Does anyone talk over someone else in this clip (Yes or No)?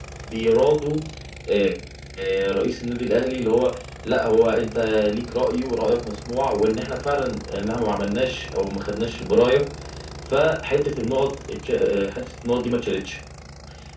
No